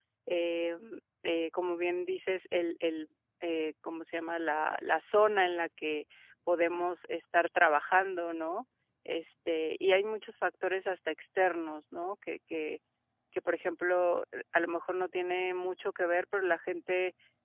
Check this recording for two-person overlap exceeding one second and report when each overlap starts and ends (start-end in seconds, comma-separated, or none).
none